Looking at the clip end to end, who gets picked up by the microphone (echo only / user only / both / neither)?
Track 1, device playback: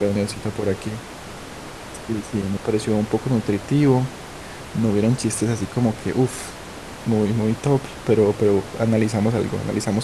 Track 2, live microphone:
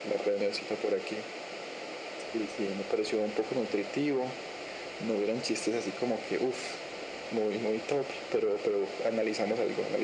echo only